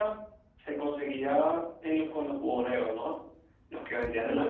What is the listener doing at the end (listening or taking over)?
taking over